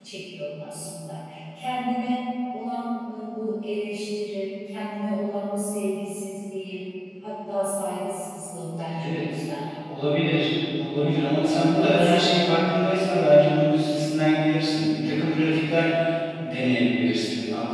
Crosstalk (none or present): present